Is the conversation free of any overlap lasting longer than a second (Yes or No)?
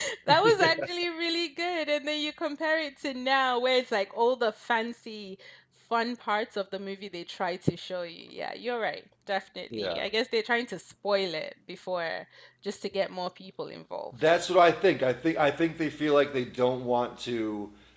Yes